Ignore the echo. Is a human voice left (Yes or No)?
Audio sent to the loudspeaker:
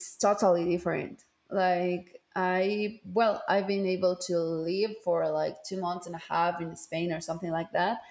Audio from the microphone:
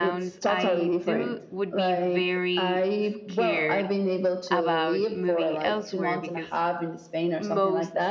Yes